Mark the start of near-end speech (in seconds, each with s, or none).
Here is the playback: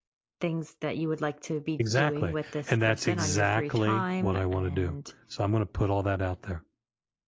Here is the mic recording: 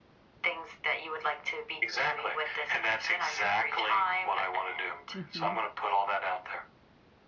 5.2 s